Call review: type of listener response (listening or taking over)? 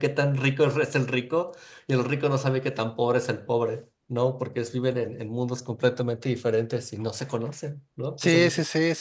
taking over